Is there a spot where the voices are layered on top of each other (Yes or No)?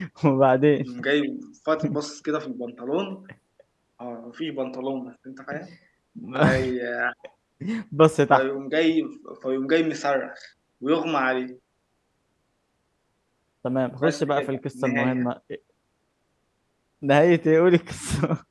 Yes